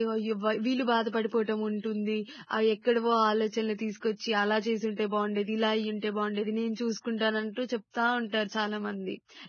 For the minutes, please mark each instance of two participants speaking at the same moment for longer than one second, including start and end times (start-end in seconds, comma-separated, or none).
none